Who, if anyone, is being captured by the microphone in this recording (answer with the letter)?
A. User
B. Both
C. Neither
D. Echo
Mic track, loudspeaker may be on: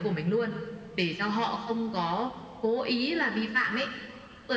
D